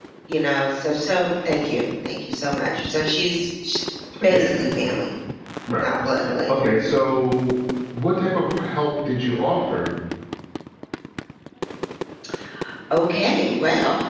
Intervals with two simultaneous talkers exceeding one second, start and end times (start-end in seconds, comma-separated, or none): none